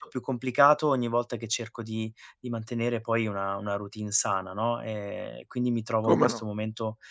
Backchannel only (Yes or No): Yes